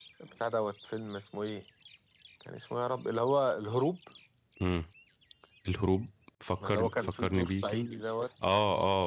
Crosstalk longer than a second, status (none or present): present